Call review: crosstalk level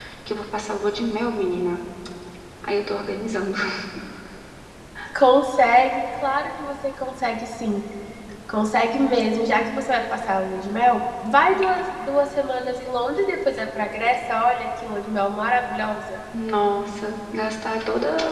none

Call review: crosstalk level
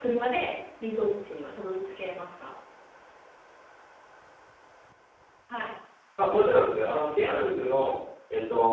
none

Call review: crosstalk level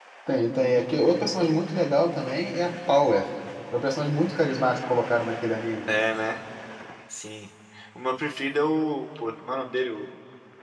none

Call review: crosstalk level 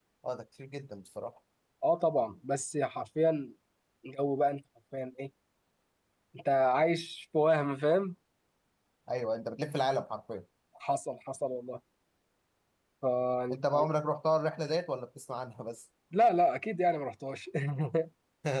none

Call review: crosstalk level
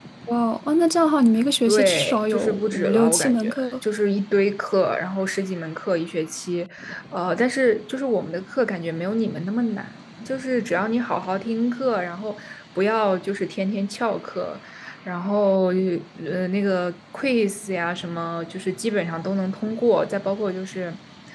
present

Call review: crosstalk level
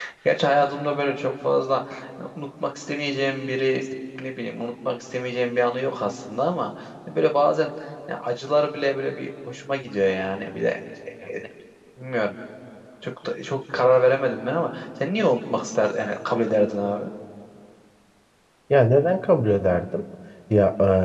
none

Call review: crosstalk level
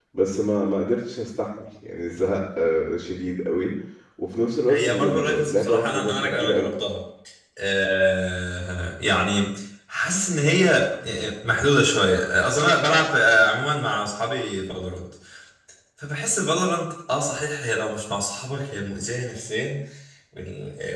present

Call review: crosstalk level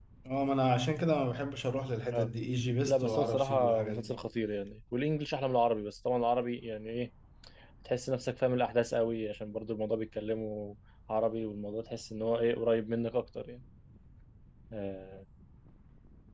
present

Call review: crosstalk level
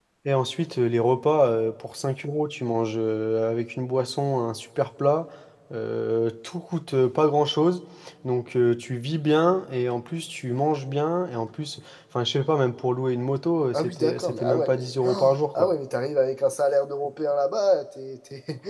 present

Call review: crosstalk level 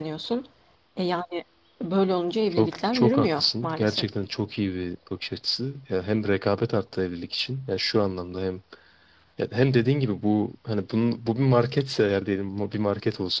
present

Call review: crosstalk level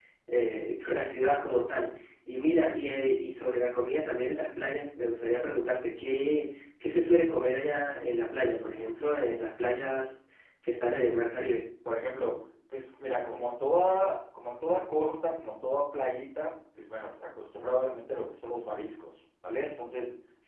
none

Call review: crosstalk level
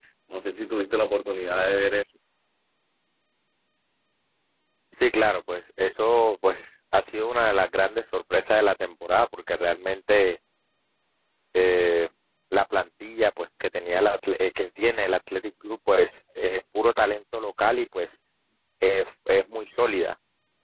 none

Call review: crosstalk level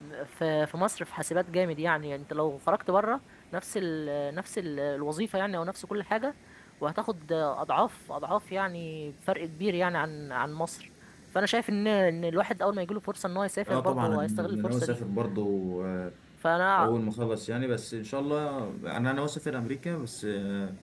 present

